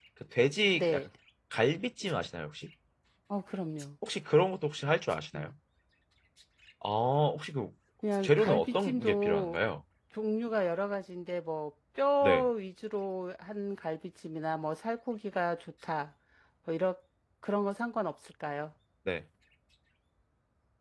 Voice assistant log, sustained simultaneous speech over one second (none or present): present